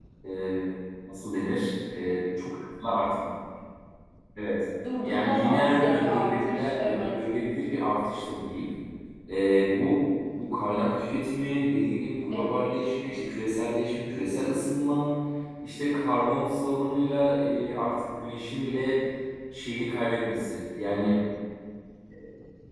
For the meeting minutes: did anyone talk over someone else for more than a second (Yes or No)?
Yes